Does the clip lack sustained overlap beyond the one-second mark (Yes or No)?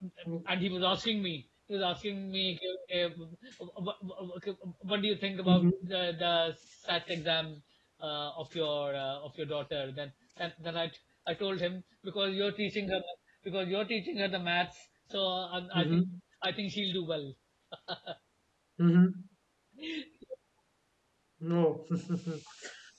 Yes